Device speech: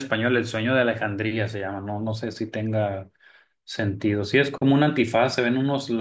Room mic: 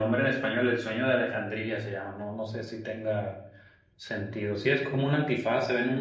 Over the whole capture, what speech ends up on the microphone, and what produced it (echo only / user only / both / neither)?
echo only